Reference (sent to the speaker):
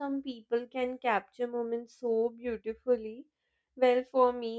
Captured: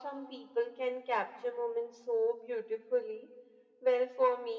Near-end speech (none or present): none